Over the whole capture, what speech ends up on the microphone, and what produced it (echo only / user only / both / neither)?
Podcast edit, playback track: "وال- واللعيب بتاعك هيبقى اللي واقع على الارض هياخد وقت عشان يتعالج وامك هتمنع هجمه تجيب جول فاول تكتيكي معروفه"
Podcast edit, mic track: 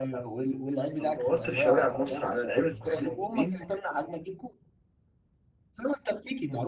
both